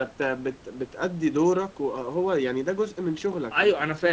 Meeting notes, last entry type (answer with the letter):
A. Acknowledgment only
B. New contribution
B